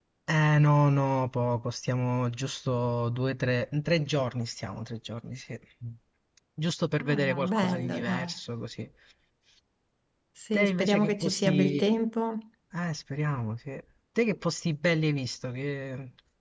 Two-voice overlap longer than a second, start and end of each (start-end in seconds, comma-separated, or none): 7.0-8.3, 10.5-11.8